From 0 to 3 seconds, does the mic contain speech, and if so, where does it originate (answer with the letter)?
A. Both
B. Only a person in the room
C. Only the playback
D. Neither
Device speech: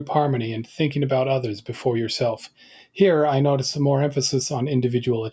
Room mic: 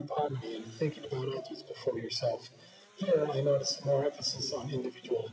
C